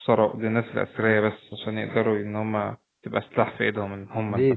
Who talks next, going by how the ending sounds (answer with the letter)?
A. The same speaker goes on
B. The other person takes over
B